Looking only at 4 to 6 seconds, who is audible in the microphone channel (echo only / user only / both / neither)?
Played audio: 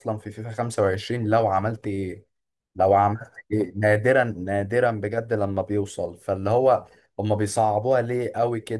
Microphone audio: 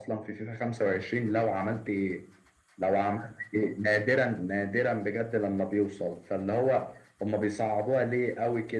echo only